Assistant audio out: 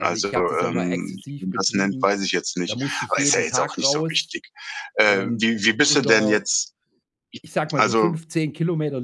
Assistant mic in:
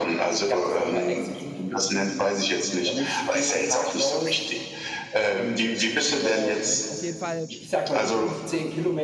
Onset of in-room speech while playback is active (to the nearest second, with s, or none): 7 s